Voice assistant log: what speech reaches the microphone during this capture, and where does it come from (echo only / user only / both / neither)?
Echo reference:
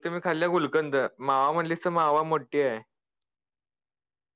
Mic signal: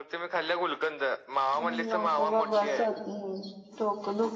both